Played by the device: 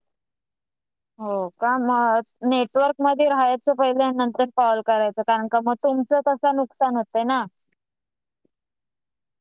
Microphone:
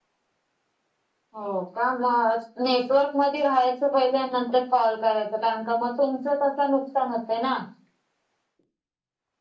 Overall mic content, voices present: echo only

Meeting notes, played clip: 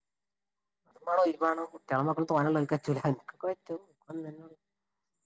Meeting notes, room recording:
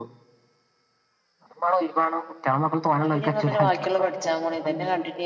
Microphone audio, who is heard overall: both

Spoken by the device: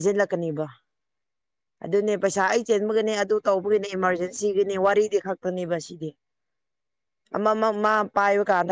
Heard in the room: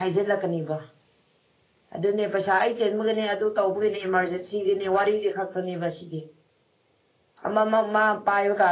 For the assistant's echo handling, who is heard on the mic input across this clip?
echo only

